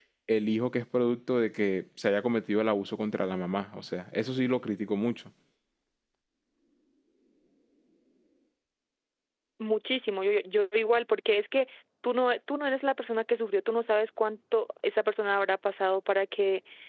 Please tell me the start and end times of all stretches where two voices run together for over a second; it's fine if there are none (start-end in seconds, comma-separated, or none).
none